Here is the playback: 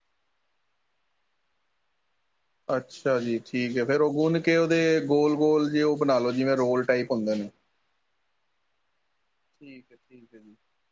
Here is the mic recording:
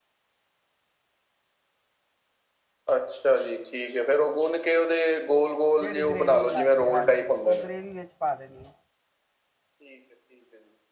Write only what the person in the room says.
ਜਿਹੜੀ ਗਰੇੇਵੀ ਬਣਾਈ ਹੈ ਹਾਂਜੀ ਉਹ ਗਰੇੇਵੀ ਵਿੱਚ ਪਾ ਦੇਣੀ ਆ।

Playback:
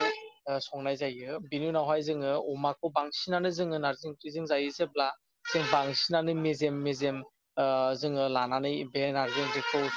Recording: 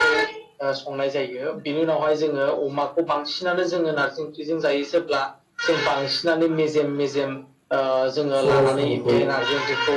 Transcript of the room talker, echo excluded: सबाय साम'खौ।

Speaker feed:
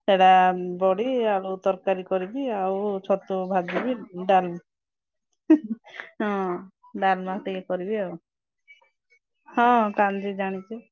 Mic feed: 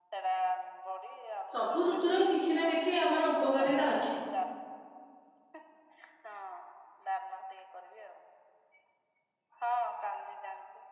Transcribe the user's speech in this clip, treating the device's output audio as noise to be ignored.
ସବୁ ଋତୁର କିଛି ନା କିଛି ଆମର ଉପକାରିତା ଅଛି।

